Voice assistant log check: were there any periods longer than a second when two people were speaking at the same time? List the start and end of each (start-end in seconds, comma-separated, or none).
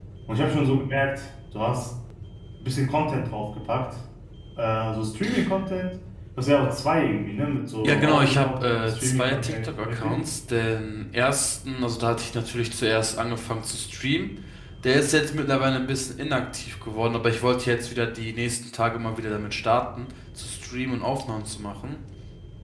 7.8-10.2